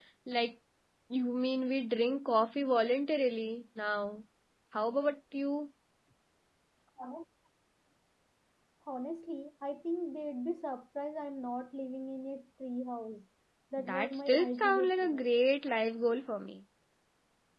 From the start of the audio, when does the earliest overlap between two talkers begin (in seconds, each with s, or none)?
13.8 s